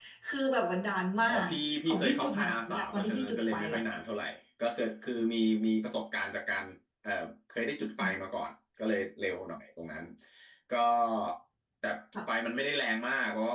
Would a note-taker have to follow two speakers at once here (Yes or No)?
Yes